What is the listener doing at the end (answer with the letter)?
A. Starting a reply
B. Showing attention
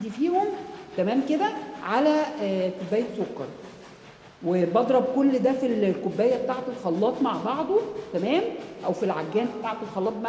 B